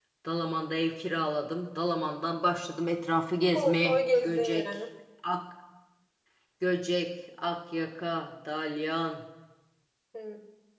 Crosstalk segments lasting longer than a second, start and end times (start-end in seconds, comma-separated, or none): 3.5-4.8